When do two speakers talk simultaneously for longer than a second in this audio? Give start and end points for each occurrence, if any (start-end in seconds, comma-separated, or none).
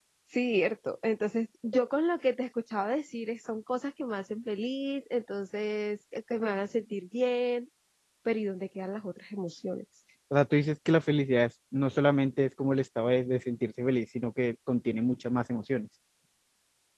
none